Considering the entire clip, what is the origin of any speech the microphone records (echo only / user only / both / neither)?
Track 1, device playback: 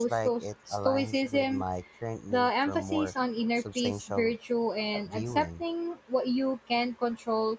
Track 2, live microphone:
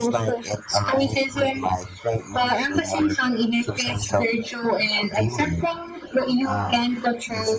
both